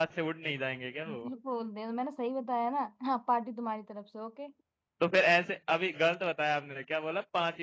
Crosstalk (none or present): none